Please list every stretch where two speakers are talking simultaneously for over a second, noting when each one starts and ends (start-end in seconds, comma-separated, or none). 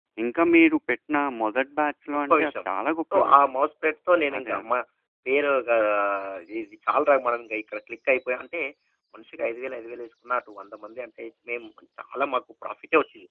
none